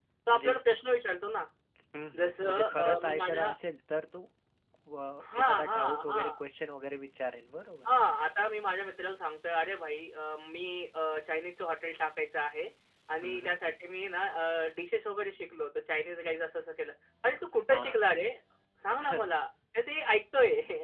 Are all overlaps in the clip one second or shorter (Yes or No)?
No